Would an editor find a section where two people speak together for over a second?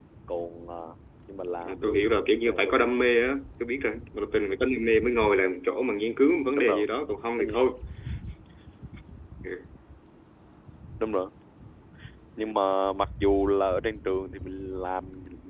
Yes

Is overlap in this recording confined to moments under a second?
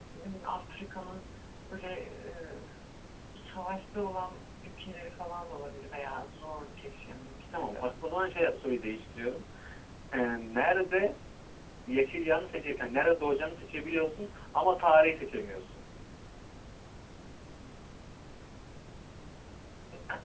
Yes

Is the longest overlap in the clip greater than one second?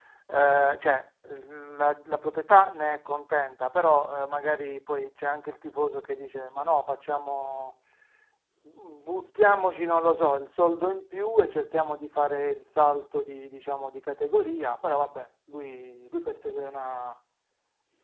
No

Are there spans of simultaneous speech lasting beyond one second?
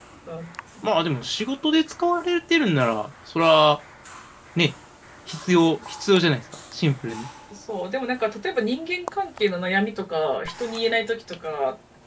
No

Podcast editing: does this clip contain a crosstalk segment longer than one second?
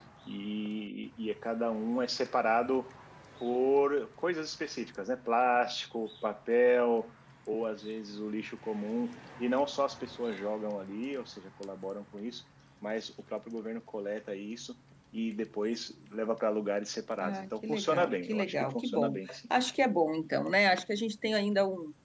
Yes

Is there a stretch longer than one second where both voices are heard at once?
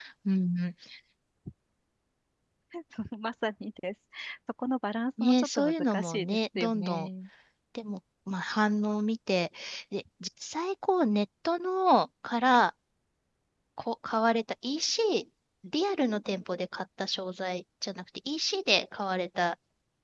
Yes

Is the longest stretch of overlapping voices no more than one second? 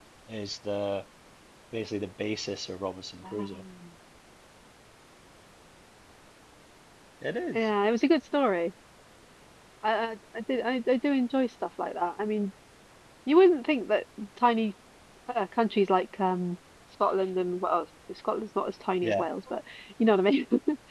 Yes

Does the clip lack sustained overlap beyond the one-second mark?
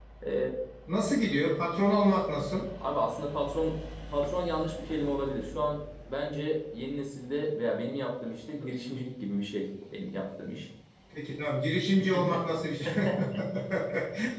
Yes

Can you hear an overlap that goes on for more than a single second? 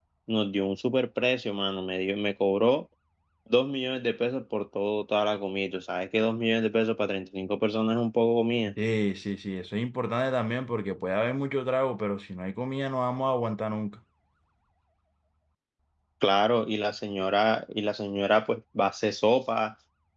No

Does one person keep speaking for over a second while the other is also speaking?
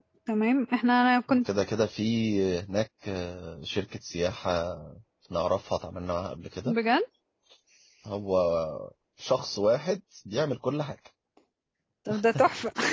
No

